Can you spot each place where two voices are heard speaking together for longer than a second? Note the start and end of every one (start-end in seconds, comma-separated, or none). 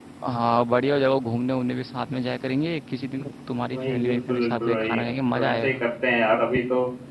3.7-5.8